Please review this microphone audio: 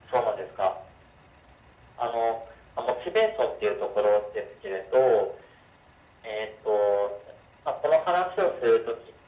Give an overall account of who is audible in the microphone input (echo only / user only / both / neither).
echo only